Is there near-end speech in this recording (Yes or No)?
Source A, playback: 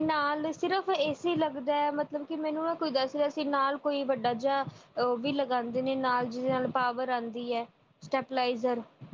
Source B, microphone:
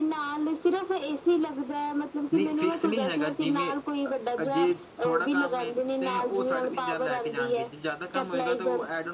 Yes